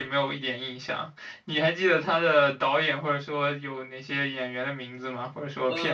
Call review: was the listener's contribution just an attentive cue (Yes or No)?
No